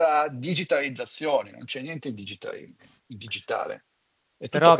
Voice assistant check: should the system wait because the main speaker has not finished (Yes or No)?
No